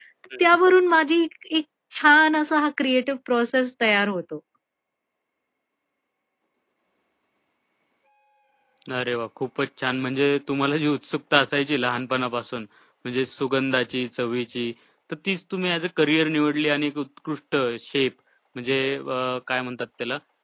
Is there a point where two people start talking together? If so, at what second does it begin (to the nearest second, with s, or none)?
none